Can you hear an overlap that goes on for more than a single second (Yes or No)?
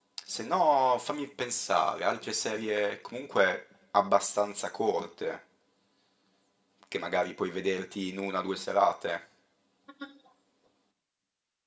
No